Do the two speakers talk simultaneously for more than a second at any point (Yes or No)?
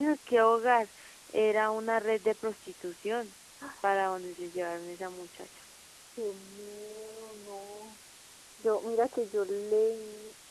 No